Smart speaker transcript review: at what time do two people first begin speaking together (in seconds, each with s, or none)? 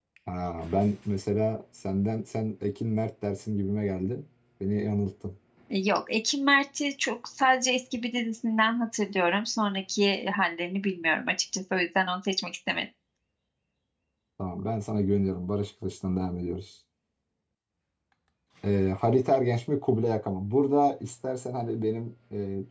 none